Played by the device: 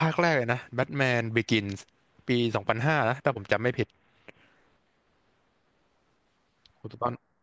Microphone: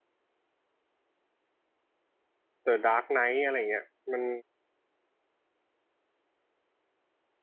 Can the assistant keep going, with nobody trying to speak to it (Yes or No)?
No